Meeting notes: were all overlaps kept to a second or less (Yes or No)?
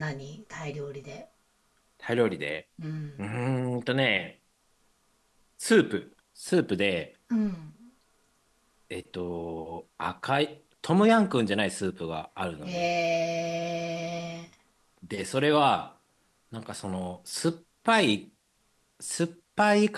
Yes